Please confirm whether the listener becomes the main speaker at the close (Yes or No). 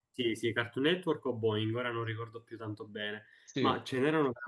No